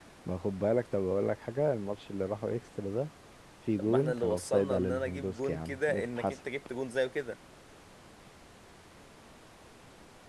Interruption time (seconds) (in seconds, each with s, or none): 3.8 s